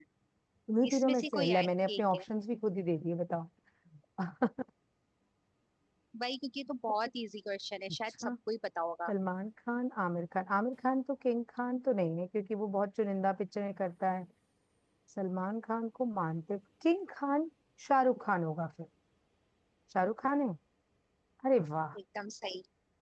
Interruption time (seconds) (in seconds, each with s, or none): 0.9 s